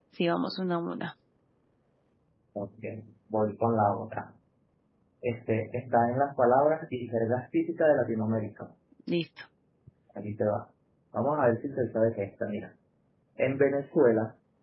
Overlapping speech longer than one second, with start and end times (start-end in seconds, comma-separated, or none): none